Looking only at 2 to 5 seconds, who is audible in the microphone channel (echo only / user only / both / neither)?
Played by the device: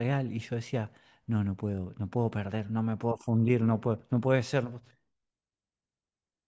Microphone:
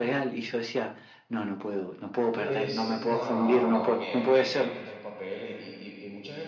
both